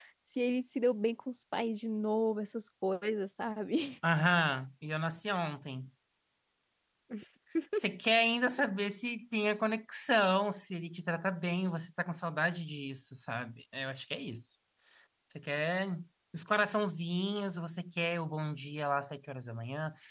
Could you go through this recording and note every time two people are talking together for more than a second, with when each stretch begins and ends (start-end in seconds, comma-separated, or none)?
none